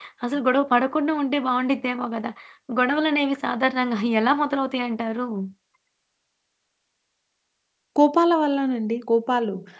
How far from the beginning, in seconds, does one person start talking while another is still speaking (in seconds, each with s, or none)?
none